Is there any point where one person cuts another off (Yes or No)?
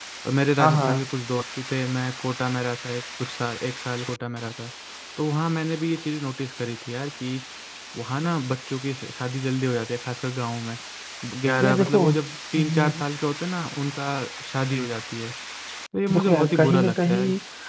Yes